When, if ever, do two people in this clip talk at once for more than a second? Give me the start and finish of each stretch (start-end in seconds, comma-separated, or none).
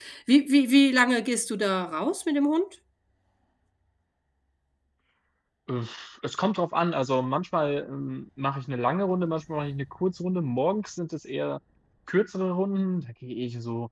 none